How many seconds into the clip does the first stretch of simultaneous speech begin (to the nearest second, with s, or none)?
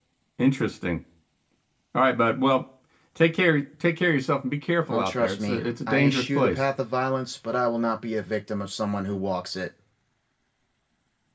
5 s